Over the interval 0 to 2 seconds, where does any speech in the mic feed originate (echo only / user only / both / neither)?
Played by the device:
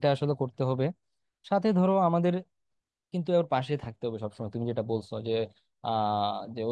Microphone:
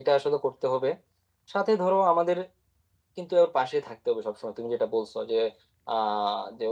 echo only